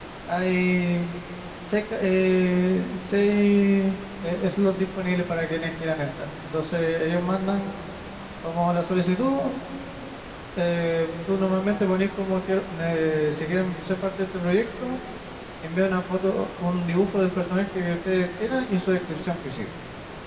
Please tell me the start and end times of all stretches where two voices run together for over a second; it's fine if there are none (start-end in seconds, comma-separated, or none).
none